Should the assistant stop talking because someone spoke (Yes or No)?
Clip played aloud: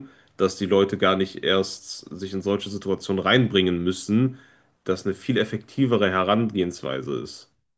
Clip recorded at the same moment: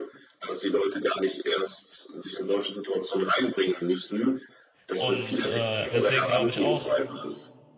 Yes